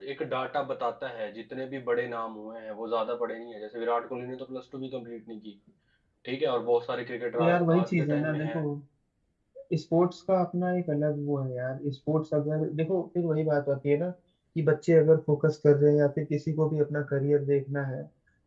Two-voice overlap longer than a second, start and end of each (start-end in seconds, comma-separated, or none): 7.3-8.6